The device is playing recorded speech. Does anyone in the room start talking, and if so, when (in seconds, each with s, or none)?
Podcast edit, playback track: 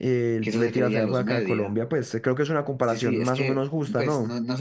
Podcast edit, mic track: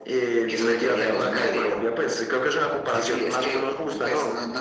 none